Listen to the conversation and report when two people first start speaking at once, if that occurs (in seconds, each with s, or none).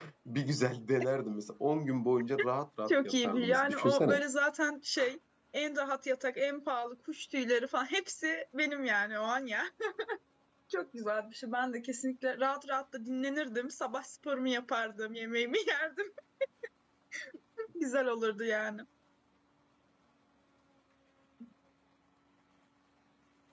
2.9 s